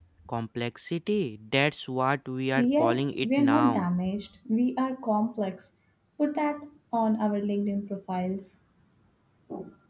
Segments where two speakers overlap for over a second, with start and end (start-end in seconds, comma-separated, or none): 2.6-3.9